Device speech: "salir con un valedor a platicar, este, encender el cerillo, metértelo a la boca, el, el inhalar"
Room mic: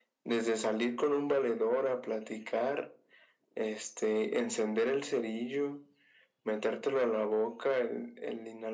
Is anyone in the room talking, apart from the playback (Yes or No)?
No